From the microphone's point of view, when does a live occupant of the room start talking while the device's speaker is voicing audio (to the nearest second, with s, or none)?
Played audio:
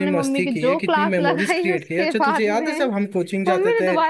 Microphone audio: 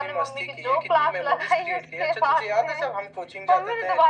none